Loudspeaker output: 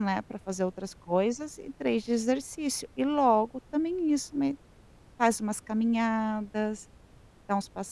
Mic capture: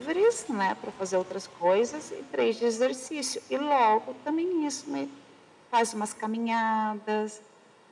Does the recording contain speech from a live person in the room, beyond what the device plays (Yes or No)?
No